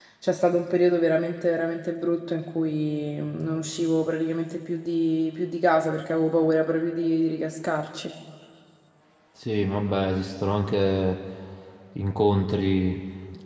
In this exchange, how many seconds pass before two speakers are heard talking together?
none

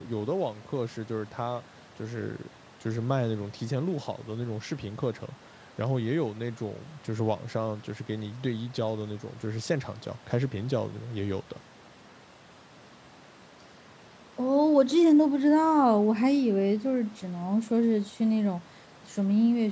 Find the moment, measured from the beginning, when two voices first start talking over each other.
none

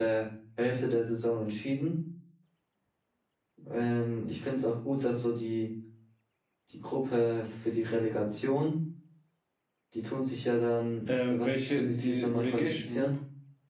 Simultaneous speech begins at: 11 s

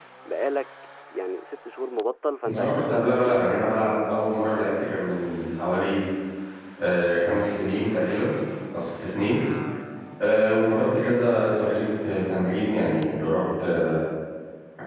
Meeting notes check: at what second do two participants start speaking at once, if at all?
2 s

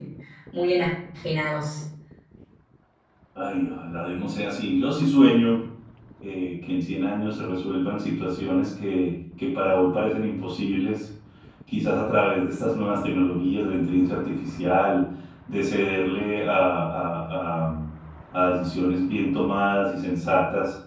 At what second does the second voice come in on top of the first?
none

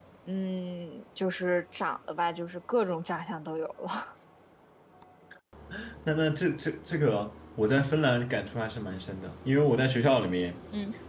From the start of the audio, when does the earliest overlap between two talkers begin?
none

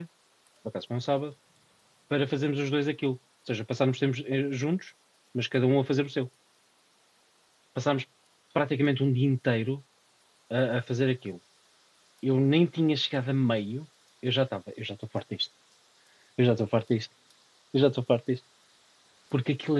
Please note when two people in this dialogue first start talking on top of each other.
none

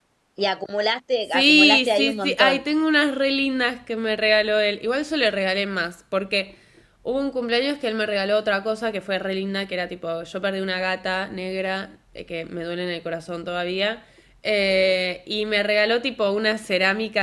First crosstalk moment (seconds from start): 1 s

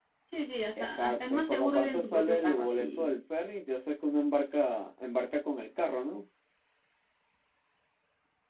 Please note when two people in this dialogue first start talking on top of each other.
1 s

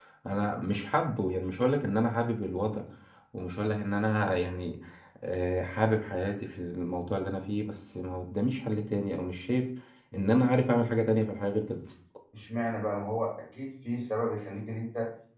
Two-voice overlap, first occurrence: none

